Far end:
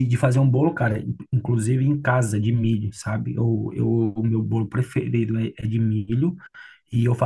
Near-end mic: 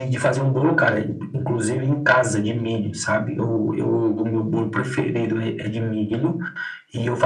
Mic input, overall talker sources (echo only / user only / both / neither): echo only